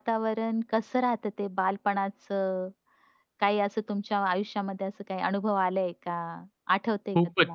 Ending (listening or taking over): taking over